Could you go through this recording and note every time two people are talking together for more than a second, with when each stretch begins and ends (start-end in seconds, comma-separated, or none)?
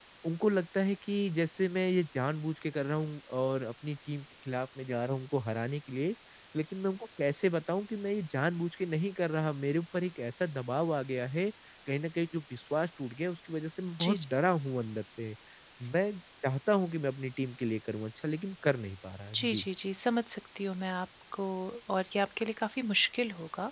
none